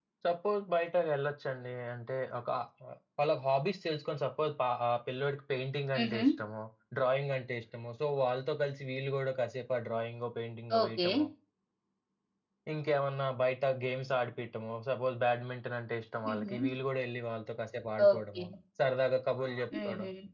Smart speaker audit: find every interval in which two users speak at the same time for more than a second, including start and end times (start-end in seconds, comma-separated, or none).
none